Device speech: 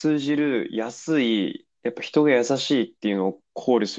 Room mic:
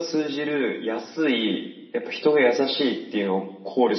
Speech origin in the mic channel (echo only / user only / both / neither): echo only